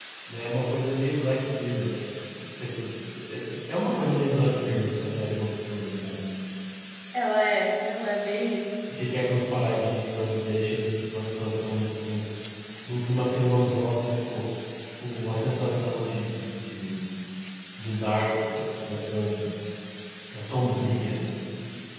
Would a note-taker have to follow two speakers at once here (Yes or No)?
No